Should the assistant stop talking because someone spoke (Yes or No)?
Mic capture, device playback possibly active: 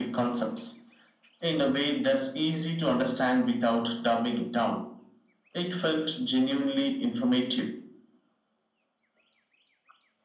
No